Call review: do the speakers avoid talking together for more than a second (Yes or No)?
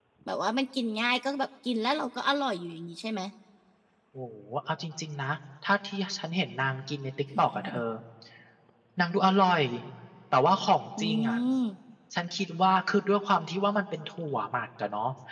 Yes